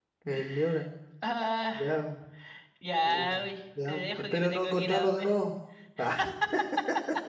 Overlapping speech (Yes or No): Yes